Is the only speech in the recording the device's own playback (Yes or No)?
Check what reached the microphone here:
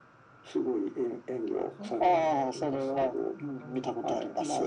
No